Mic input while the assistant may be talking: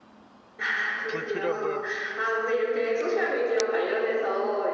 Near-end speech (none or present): present